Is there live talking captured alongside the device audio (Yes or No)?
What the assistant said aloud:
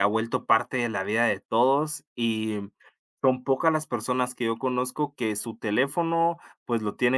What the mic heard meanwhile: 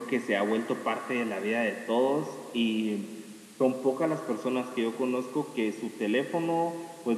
No